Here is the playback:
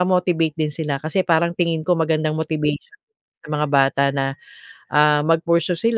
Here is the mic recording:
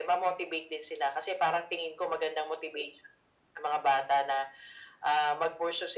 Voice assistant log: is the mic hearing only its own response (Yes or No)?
Yes